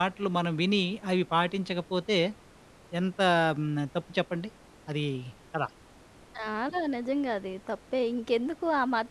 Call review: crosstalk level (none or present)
none